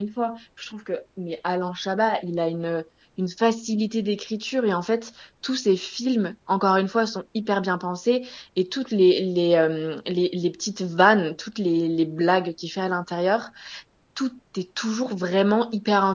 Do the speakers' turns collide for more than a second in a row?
No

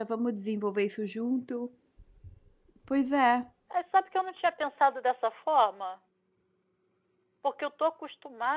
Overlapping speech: No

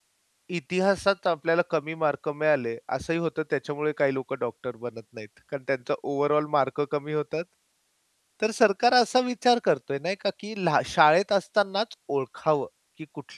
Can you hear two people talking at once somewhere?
No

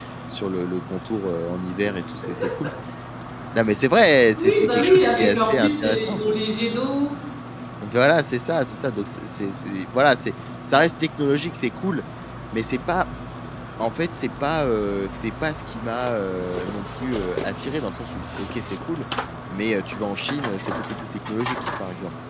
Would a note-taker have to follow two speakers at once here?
Yes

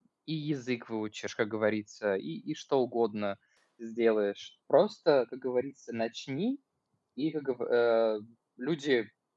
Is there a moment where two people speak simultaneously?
No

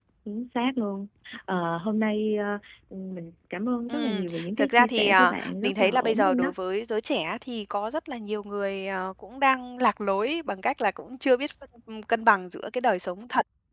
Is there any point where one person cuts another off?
Yes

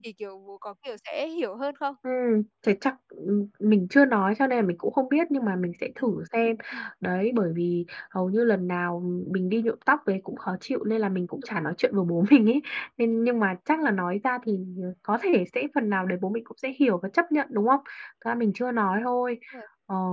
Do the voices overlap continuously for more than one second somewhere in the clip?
No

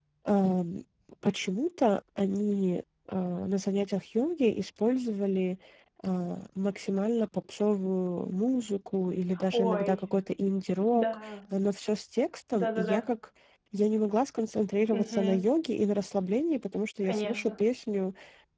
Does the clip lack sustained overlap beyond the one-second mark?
Yes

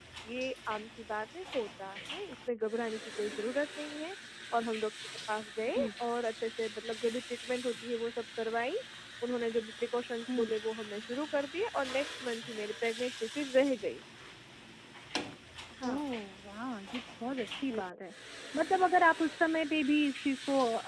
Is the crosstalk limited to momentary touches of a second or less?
Yes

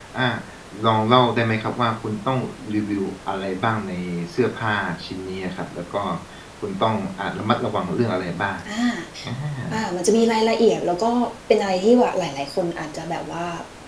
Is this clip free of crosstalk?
Yes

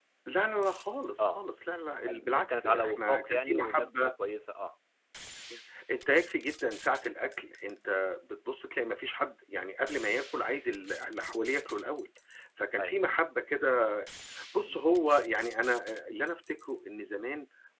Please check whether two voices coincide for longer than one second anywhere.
Yes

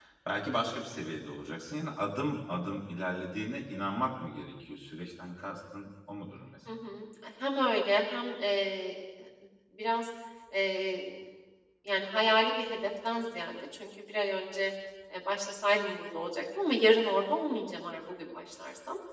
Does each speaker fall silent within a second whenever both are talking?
Yes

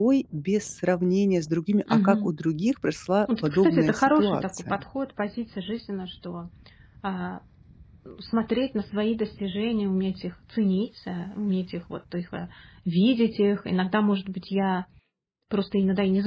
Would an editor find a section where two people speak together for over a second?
Yes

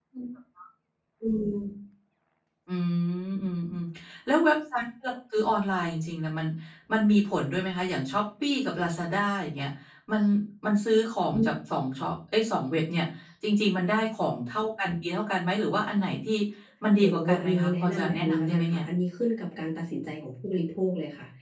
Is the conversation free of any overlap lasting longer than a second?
No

